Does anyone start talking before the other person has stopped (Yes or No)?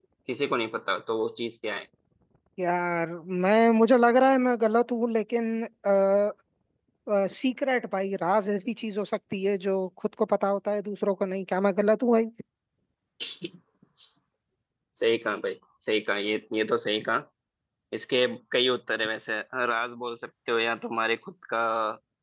No